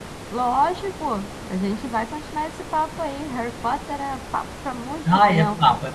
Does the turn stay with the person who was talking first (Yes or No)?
No